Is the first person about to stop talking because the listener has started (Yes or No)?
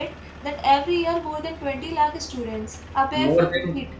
Yes